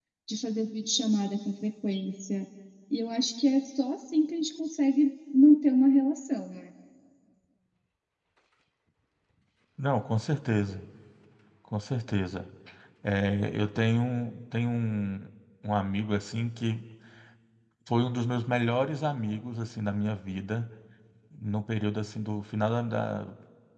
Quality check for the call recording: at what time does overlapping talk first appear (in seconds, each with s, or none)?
none